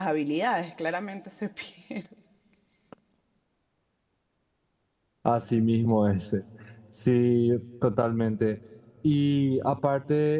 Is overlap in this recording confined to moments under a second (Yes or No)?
Yes